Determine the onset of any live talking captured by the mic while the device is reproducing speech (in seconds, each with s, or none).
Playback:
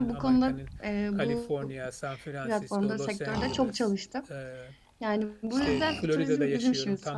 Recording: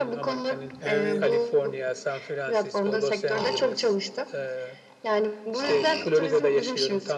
0.8 s